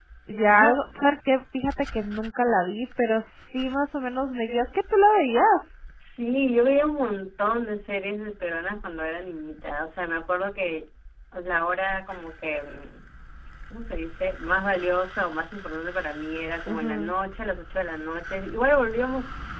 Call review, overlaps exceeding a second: none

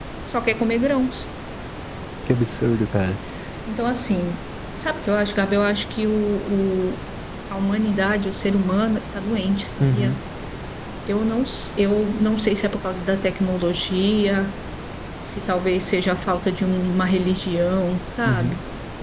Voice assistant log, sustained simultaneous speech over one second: none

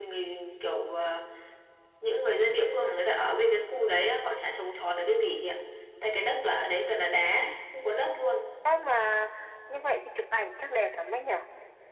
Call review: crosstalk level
none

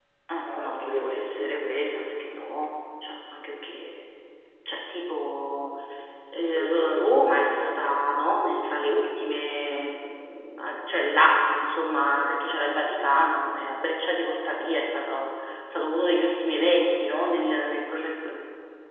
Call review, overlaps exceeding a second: present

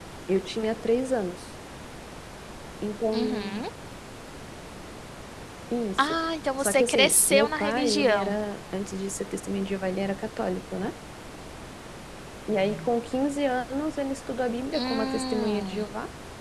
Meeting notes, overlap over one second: present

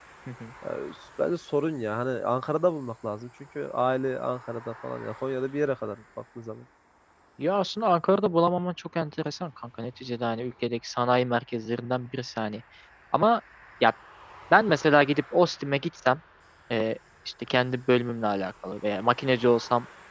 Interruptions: none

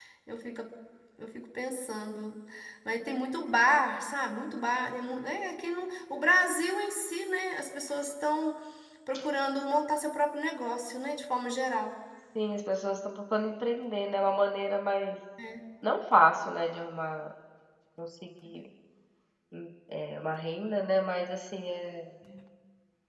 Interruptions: none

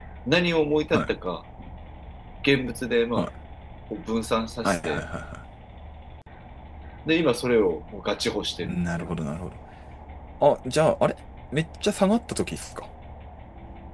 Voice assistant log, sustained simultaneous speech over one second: none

